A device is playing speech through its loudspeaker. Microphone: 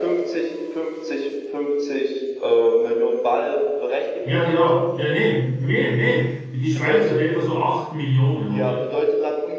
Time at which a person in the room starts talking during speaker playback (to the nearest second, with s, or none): 4 s